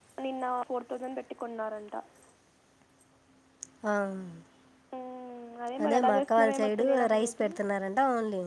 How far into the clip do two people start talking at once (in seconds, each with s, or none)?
5.9 s